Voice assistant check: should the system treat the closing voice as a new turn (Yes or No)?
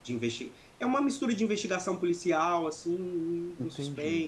Yes